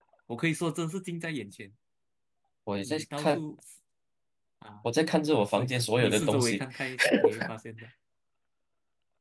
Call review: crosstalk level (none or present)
present